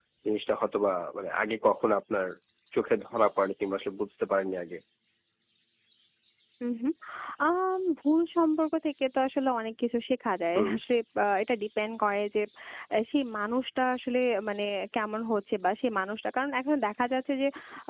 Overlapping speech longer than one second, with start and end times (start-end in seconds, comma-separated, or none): none